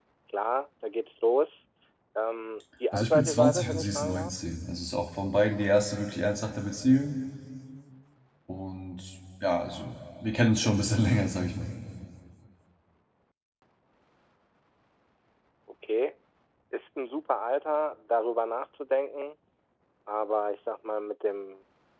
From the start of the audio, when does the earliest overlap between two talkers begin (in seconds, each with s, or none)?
2.9 s